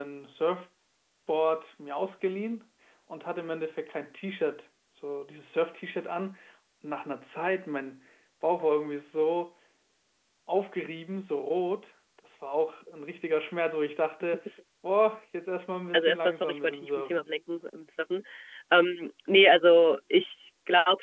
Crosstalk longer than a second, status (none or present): present